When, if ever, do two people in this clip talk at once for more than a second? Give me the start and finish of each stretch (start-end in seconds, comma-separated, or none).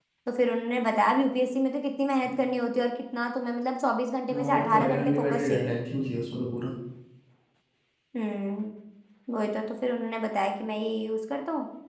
4.4-5.7